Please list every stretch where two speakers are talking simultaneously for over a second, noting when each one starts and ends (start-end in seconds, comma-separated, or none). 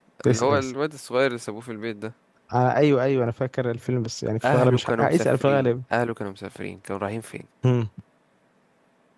4.4-5.7